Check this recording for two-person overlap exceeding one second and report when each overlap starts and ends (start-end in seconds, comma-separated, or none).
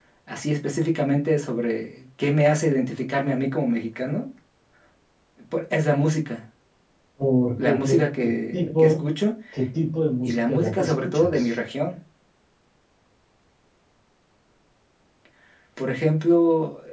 7.6-9.0, 10.2-11.5